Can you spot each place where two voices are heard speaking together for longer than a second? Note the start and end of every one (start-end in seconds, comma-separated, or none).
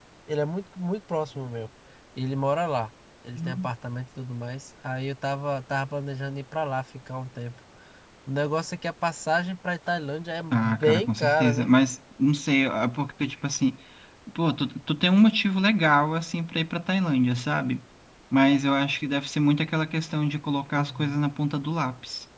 10.5-11.7